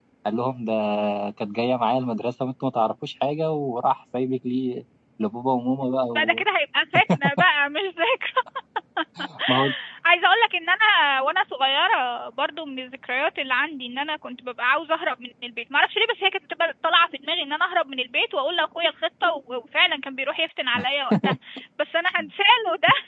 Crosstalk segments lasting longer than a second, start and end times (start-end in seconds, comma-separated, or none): none